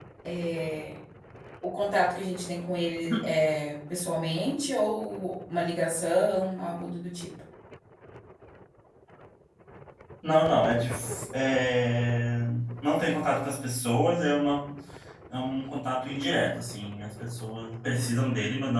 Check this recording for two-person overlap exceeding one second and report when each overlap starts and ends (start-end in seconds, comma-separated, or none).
none